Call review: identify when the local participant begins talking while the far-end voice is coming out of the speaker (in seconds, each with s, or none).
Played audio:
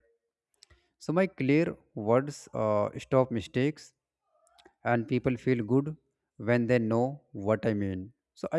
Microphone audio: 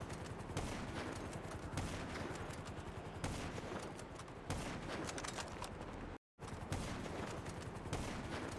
none